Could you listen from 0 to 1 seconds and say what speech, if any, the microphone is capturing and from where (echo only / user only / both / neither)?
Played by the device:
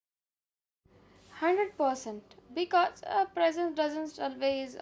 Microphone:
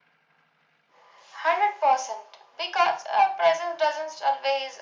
neither